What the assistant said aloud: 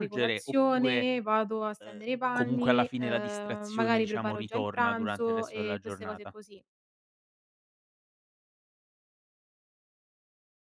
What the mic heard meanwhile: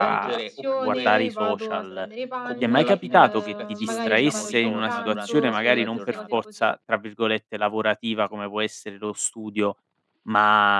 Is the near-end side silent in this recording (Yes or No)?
No